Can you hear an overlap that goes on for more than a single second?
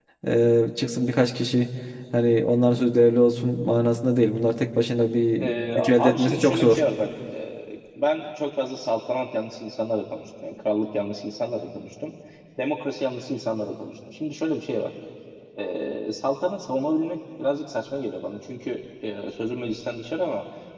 Yes, from 5.4 s

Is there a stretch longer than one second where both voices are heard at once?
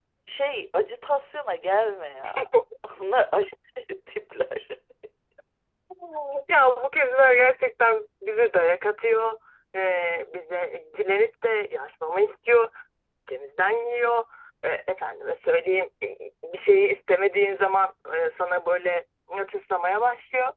No

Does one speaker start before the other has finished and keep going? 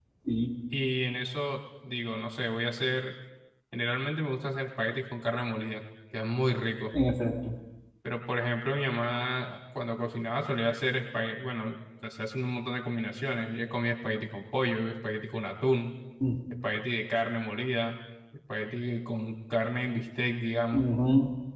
No

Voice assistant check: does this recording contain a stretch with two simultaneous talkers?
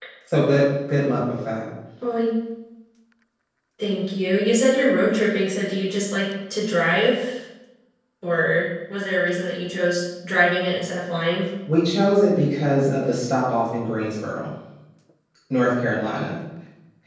No

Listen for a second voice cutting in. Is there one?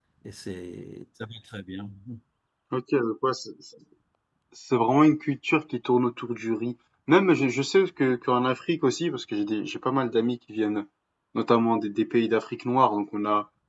No

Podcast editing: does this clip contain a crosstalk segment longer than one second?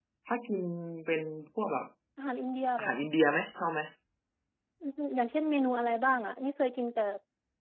No

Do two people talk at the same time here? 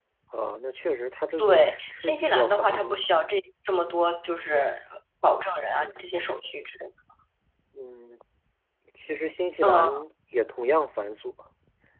Yes, from 1.4 s

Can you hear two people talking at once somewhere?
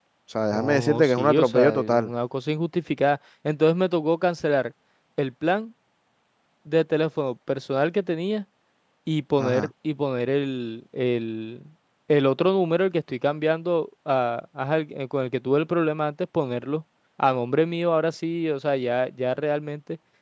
Yes, from 0.5 s

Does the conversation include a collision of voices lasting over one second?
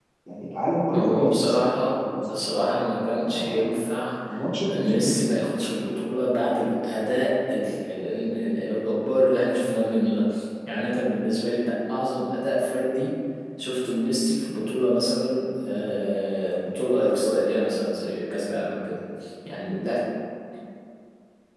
Yes, from 0.9 s

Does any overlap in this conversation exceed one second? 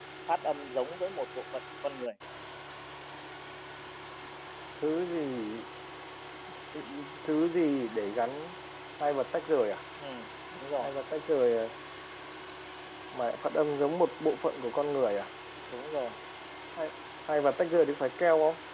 No

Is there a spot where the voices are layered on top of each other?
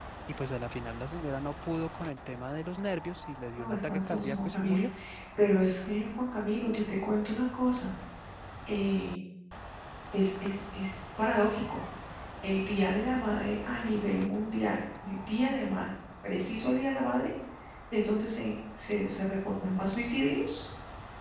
Yes, from 3.6 s

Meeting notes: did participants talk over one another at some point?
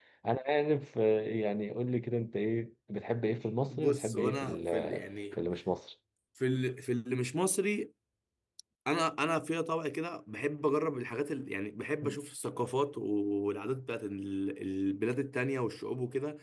Yes, from 3.7 s

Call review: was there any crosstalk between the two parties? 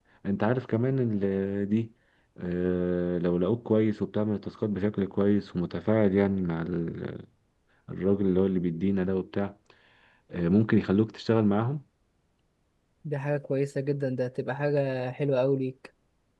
No

